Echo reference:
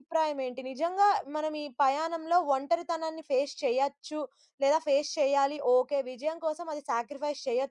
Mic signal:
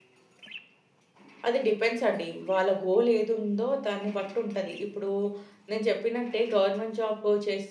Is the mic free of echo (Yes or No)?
Yes